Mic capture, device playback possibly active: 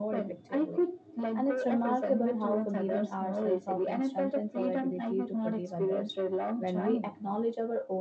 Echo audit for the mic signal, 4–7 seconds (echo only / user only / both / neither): both